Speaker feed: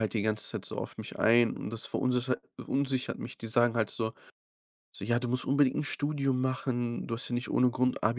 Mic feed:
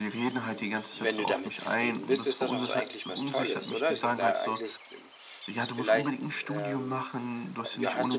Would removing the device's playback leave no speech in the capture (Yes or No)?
No